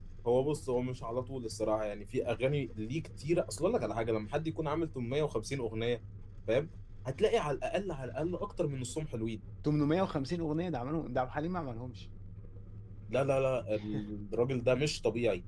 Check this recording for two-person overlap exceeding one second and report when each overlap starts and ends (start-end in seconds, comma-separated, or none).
none